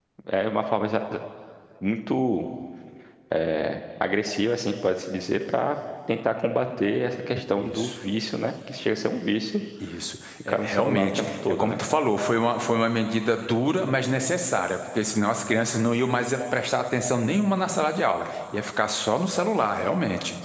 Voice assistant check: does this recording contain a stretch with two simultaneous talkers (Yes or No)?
Yes